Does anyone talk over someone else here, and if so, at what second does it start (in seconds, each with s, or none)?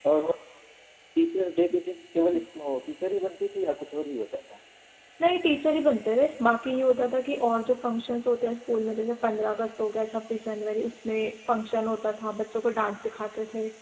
none